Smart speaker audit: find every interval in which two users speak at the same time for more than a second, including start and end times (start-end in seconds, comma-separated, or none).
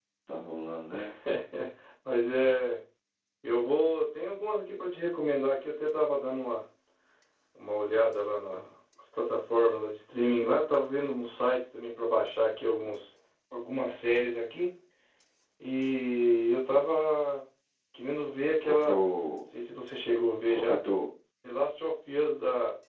none